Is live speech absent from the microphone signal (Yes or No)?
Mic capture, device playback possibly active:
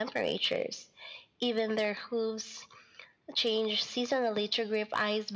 Yes